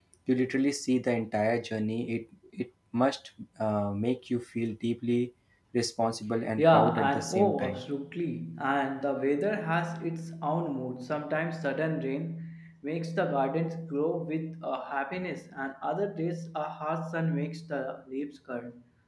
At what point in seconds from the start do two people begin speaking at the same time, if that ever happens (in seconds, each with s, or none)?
6.6 s